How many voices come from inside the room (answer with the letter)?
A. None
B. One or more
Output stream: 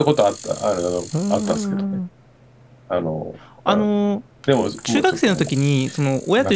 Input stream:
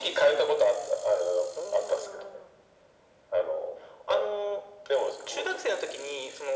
A